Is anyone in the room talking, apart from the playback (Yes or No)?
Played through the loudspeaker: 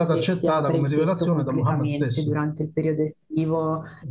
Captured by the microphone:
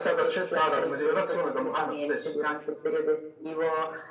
No